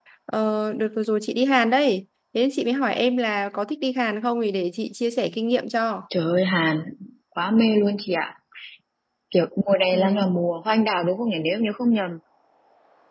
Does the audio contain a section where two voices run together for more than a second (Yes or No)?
No